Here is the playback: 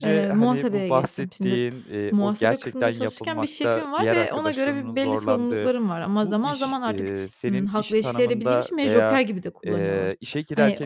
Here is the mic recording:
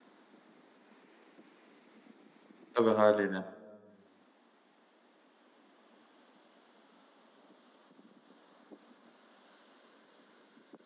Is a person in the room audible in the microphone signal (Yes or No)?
Yes